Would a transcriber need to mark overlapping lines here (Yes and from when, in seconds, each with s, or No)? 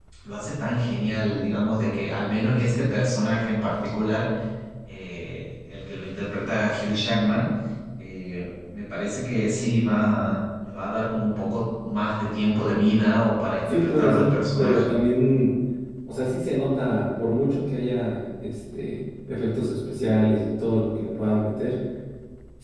Yes, from 13.7 s